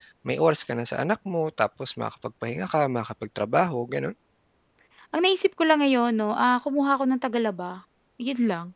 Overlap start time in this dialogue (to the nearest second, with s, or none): none